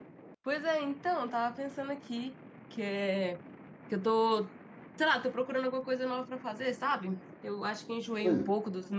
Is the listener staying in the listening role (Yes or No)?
Yes